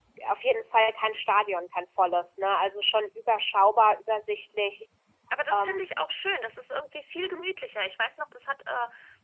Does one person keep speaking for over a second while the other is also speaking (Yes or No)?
No